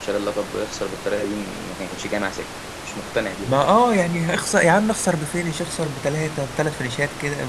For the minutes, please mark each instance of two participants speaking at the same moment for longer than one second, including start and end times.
none

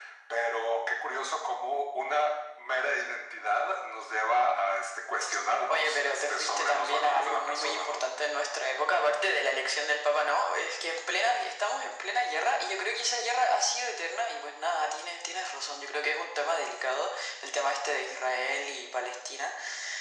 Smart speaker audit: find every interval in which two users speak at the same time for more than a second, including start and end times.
5.7-8.0

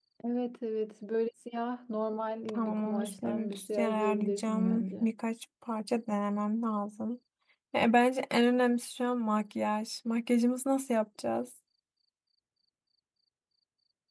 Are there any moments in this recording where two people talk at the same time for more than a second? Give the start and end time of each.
2.5-5.1

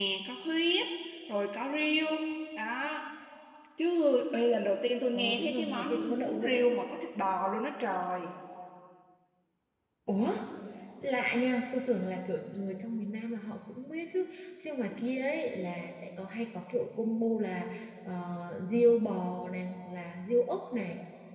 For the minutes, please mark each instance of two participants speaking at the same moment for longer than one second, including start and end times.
5.1-6.7

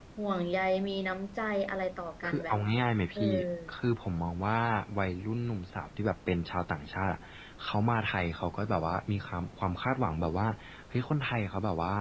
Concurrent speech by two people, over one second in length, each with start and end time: none

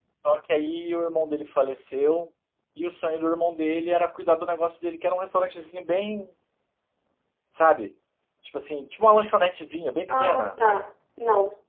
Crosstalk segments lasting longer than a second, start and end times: none

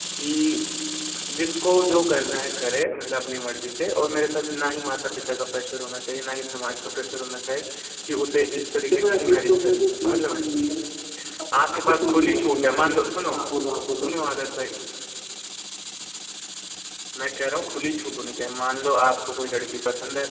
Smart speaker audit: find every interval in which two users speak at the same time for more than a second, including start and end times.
8.9-10.4, 11.5-12.9

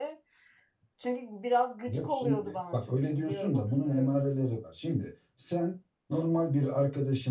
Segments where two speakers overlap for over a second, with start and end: 1.9-4.2

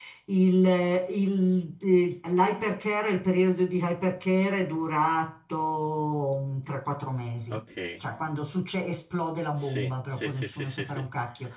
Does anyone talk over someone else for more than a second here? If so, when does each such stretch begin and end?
9.6-11.1

